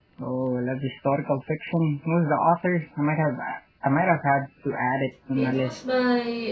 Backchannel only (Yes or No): No